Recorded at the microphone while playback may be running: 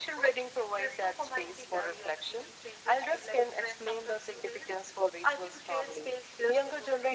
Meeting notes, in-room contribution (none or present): none